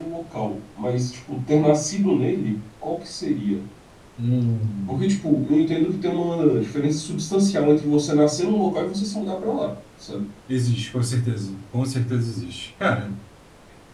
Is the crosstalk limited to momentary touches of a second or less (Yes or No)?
Yes